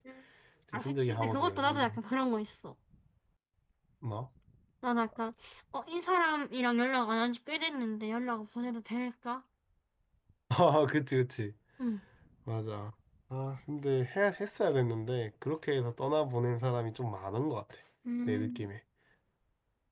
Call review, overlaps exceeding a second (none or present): present